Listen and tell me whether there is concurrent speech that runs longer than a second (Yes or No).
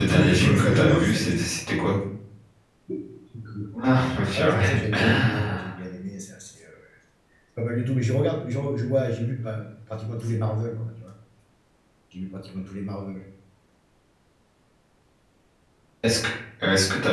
Yes